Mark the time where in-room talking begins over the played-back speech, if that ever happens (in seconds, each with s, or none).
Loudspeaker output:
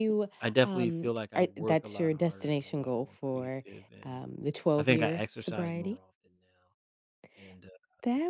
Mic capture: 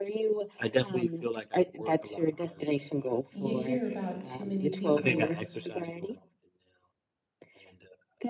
3.3 s